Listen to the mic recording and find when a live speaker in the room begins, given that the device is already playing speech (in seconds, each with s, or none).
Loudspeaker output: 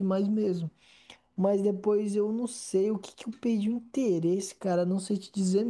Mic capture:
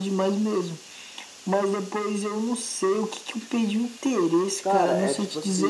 4.6 s